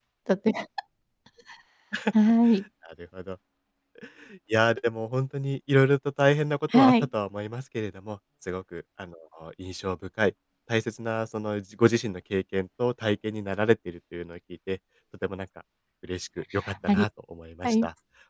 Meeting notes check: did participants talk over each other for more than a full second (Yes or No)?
No